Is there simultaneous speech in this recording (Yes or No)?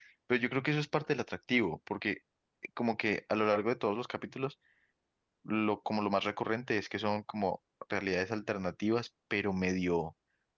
No